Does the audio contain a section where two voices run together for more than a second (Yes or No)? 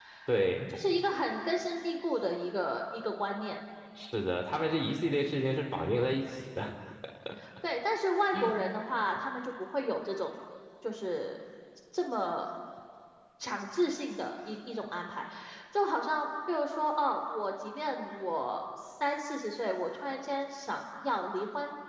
No